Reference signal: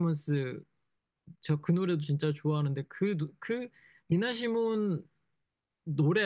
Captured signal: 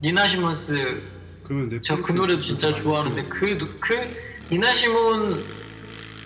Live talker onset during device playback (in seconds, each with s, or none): 1.4 s